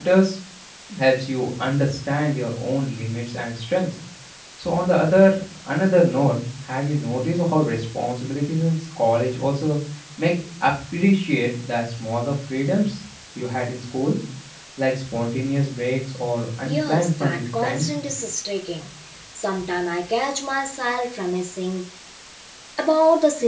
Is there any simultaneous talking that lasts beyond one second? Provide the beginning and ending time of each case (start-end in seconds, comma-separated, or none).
16.6-17.9